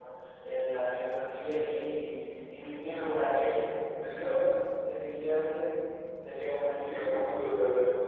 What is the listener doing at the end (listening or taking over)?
taking over